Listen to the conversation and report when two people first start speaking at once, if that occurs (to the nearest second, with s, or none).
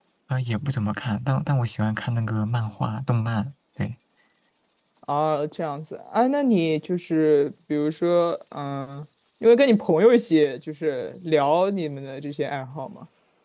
none